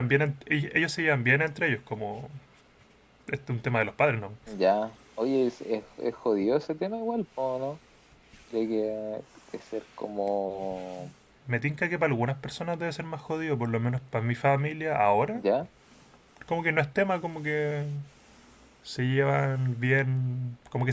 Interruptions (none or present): none